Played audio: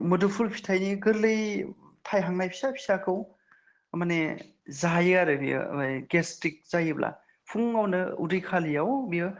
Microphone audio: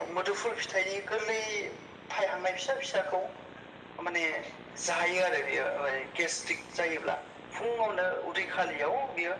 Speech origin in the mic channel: echo only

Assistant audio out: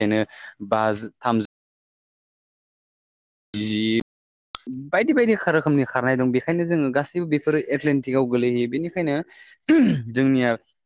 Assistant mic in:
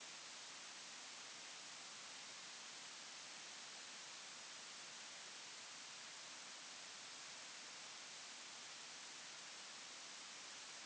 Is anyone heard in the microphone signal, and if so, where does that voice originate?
neither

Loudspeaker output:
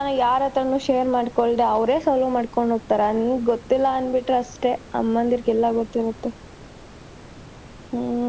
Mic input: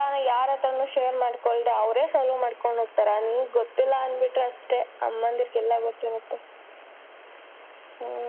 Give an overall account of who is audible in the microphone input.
echo only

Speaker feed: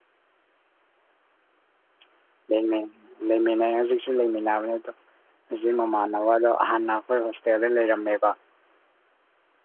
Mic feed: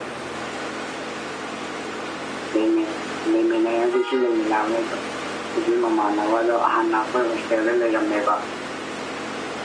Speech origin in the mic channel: echo only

